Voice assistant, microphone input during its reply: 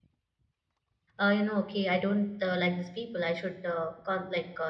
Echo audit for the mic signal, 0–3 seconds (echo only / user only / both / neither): user only